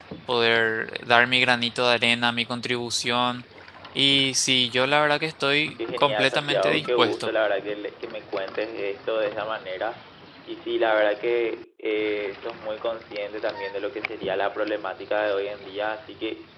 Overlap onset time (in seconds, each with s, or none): 5.8 s